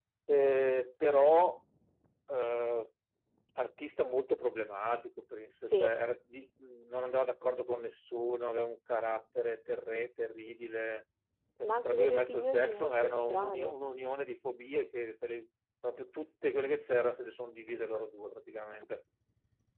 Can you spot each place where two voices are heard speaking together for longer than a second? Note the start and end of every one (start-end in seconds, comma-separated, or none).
11.6-13.7